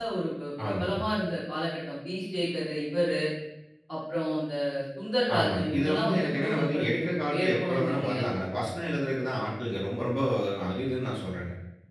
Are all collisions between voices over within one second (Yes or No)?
No